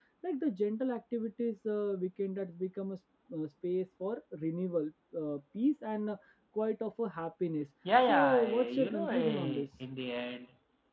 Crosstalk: present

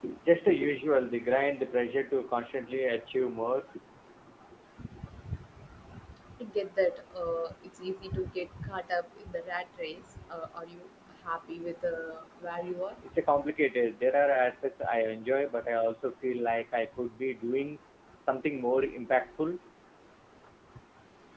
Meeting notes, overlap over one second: none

